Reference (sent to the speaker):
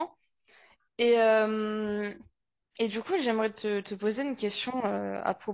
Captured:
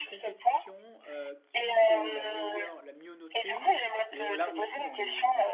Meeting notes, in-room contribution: present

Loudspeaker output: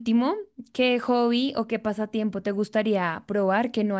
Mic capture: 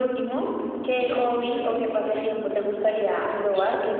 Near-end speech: present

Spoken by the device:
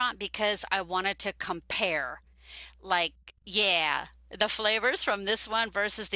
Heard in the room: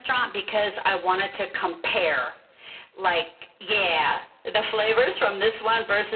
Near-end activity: none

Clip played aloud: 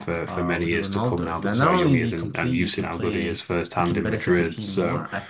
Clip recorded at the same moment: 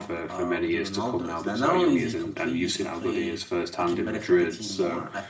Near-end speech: none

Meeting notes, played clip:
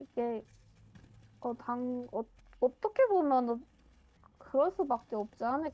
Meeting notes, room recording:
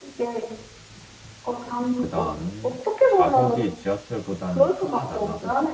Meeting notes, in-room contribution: present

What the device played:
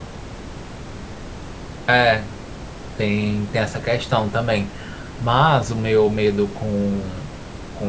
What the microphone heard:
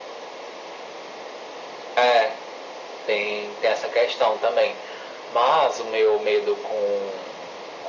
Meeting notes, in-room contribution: none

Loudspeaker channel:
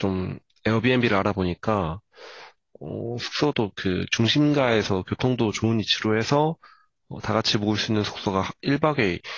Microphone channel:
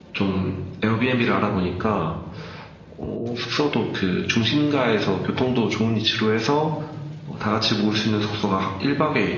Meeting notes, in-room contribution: none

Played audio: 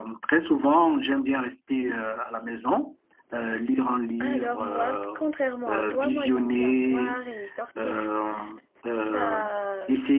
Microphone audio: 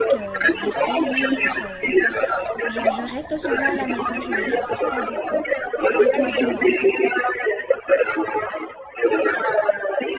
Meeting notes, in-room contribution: present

